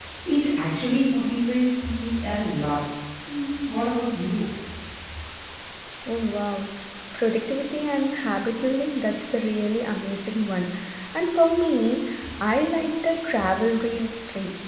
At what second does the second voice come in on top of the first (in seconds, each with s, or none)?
none